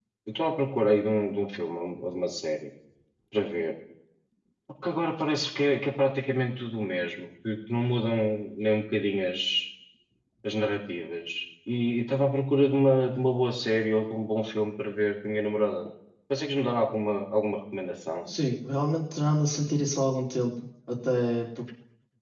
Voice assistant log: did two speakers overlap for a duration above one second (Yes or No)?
No